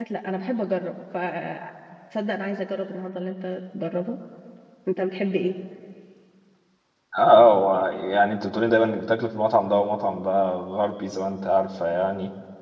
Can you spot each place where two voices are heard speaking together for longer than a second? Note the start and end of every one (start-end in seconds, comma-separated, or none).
none